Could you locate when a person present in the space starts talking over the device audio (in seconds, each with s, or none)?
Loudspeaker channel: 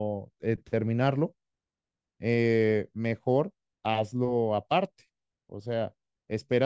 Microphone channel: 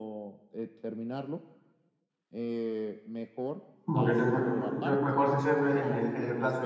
3.9 s